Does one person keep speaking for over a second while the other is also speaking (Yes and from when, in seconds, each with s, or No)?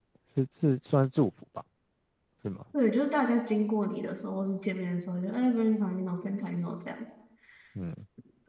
No